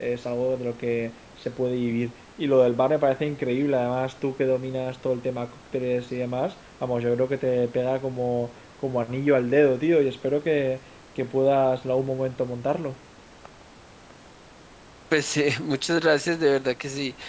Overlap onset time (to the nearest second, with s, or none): none